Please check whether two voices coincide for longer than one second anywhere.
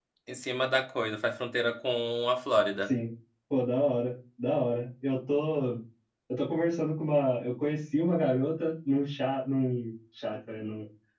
No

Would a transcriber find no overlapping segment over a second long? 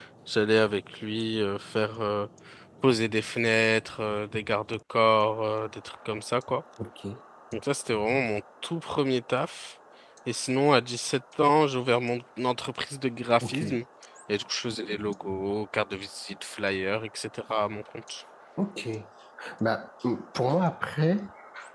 Yes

